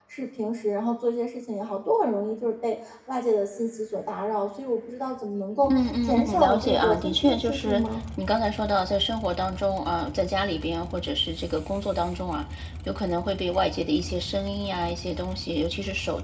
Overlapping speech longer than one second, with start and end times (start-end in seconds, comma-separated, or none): 5.7-7.8